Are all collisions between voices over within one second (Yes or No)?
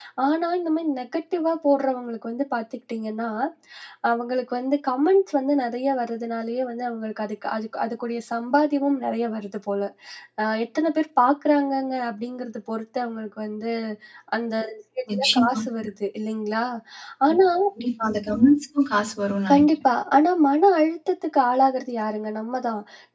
Yes